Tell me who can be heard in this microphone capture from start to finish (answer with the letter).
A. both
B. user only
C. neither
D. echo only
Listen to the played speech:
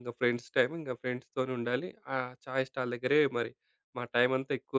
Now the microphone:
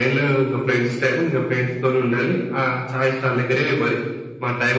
D